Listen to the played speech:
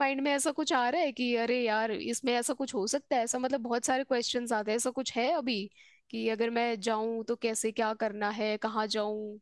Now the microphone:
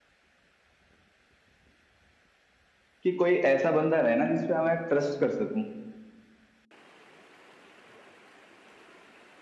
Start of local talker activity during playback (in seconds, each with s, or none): 3.0 s